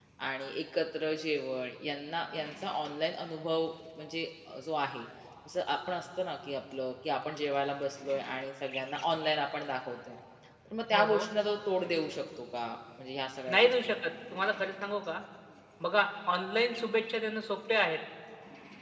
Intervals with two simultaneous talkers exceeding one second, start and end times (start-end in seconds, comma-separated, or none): none